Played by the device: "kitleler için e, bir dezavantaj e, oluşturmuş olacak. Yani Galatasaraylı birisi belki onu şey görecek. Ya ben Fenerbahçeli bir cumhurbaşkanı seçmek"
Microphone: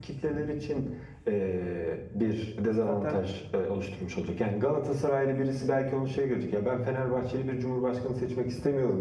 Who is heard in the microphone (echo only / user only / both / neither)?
both